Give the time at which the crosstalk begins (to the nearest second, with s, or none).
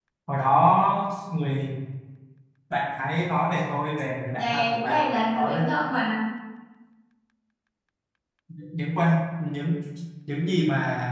4 s